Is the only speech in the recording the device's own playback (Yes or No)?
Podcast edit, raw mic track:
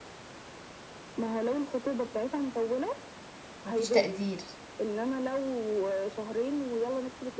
No